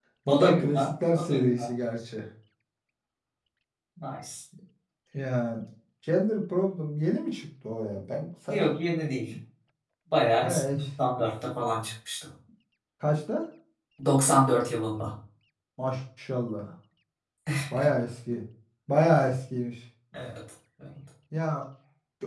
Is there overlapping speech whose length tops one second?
Yes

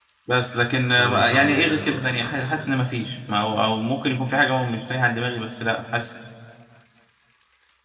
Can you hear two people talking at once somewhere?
Yes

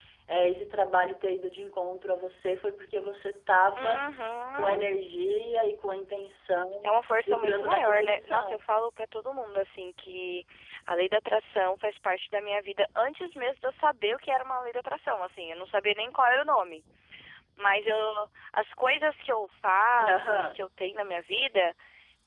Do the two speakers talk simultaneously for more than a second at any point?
Yes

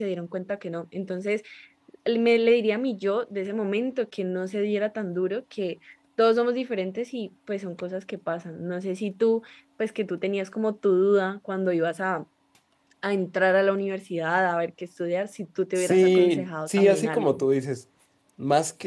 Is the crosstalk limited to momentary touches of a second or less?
No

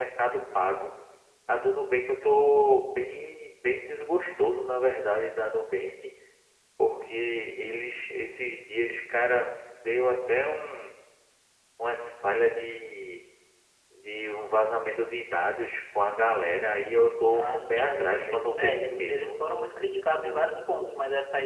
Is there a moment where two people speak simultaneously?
Yes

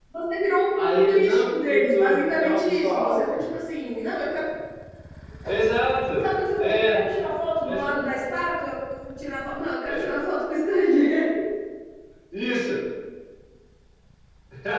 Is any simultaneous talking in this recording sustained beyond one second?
Yes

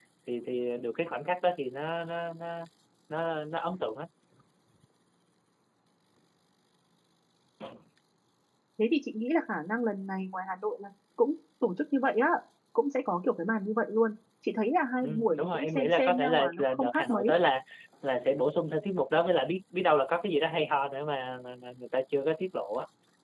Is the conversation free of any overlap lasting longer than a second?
No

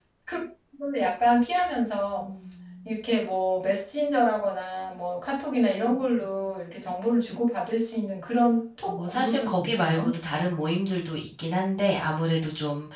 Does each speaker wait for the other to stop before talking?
No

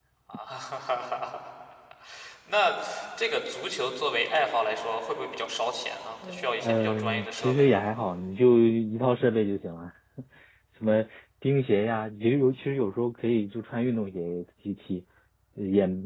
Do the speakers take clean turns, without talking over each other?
No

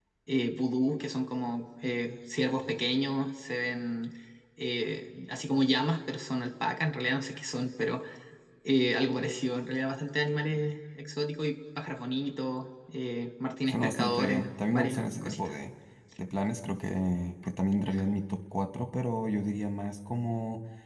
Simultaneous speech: Yes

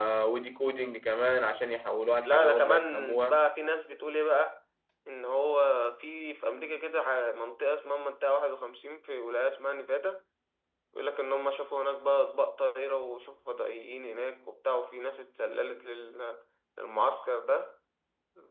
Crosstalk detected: Yes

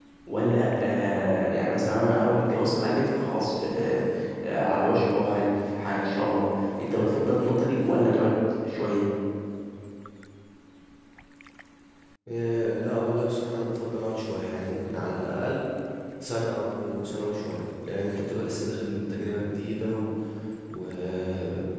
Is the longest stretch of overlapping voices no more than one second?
Yes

